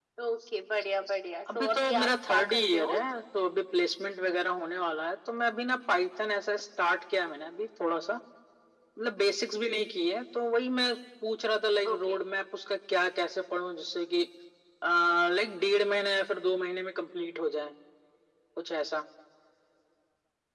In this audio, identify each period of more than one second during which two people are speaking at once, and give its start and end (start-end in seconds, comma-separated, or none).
1.6-3.0